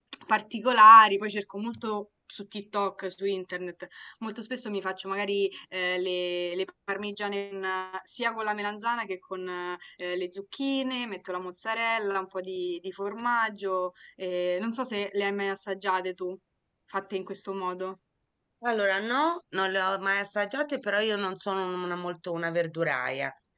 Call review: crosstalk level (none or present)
none